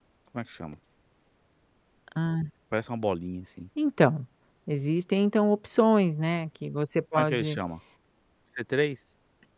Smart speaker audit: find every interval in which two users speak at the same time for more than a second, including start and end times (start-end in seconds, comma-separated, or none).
none